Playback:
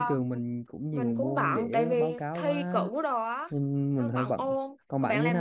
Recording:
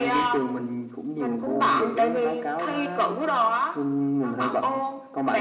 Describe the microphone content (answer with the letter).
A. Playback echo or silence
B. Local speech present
A